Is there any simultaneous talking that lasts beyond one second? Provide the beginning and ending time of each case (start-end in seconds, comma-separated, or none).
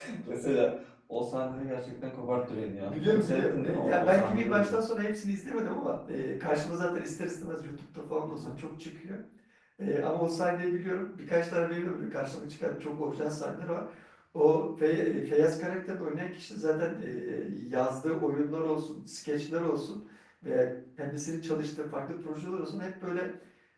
2.8-4.8